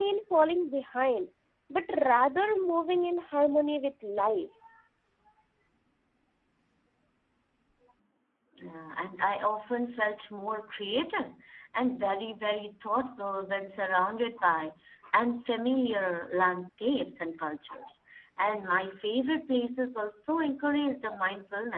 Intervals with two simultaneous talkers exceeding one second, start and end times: none

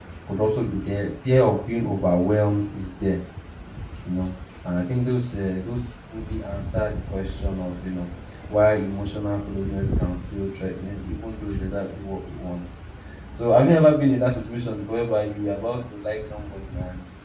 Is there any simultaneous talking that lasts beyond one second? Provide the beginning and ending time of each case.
none

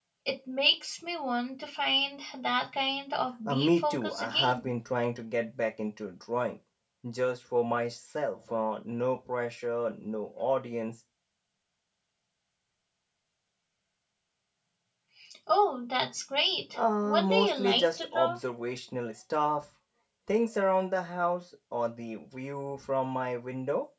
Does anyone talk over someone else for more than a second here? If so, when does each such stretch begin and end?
3.5-4.7, 17.0-18.4

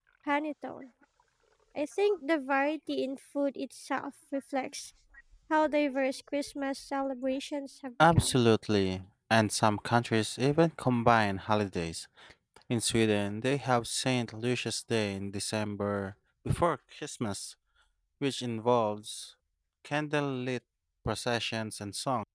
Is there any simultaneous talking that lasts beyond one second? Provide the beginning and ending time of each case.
none

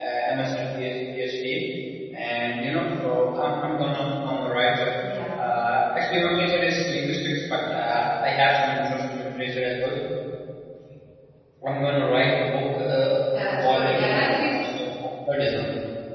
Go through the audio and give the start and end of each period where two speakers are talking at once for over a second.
13.3-14.6

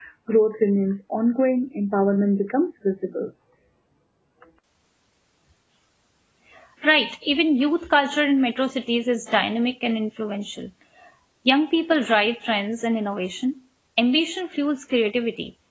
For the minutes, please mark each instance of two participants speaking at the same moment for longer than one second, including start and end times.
none

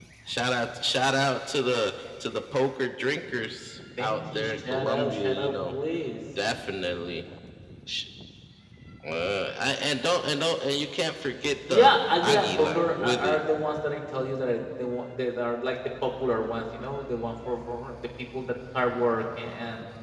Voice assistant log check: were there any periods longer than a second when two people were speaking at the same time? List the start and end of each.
4.0-5.8, 11.7-13.4

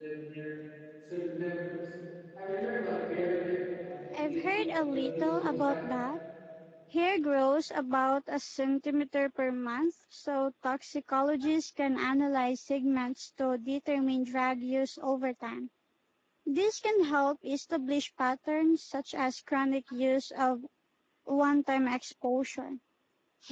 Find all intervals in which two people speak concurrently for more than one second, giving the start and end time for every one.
4.1-5.8

